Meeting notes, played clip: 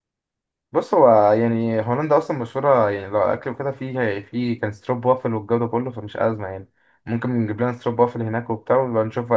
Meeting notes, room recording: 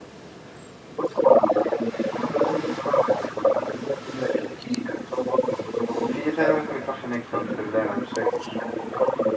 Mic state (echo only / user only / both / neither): both